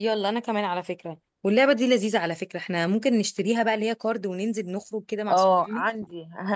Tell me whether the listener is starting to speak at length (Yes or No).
Yes